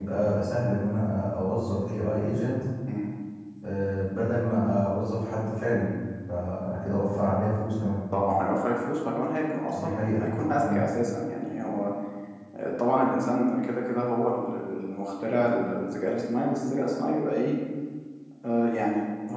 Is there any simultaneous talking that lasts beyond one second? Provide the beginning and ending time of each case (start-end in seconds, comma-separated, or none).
none